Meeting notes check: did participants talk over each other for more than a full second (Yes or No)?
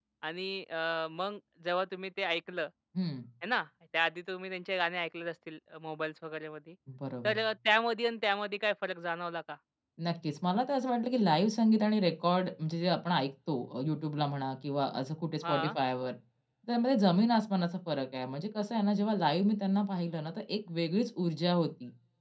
No